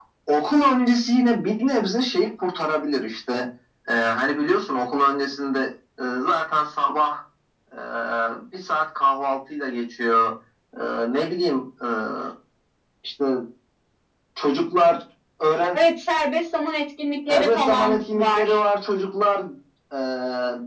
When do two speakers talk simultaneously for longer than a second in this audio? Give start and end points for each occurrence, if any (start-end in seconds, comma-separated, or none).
17.3-18.6